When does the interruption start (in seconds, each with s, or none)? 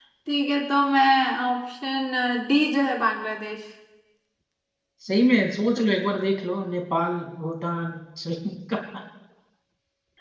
none